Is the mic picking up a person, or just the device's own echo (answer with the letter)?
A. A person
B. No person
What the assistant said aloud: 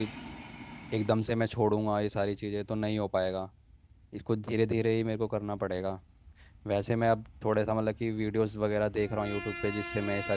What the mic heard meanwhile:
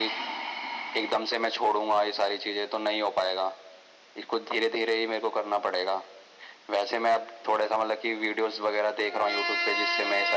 B